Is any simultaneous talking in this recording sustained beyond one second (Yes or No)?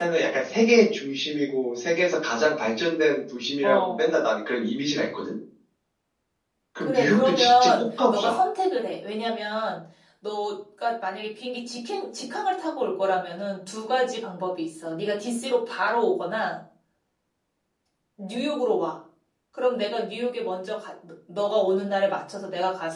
Yes